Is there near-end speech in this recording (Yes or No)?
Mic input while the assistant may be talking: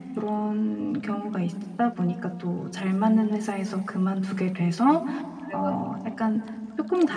Yes